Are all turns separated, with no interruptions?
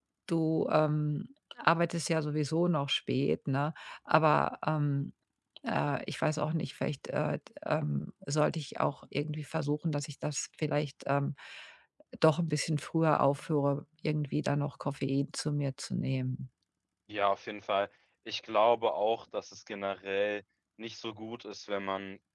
Yes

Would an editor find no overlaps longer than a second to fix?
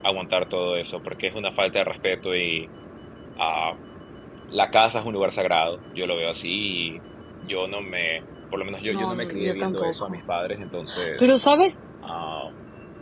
No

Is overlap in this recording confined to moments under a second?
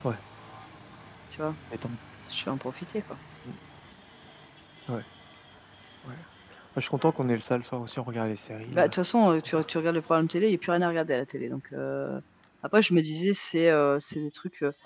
Yes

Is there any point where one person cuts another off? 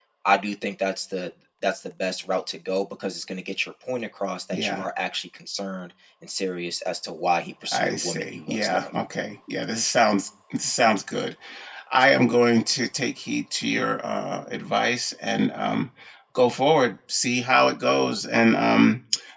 Yes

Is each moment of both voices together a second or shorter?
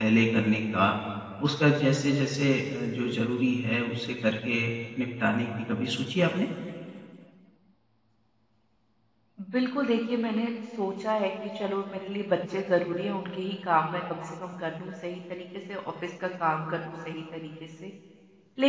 Yes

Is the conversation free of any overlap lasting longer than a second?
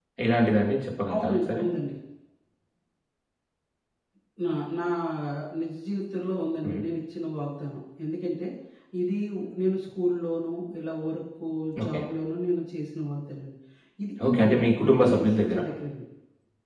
No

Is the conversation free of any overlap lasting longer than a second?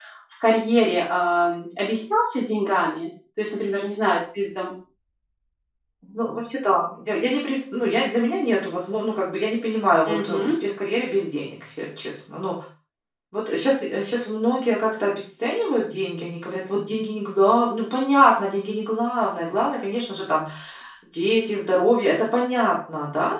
Yes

